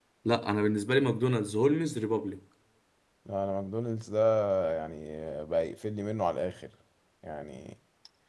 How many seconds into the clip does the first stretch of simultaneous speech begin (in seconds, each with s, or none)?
none